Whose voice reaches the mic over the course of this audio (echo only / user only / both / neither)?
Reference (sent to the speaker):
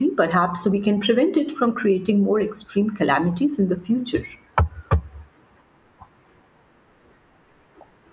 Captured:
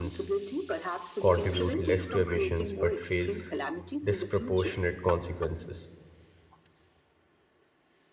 both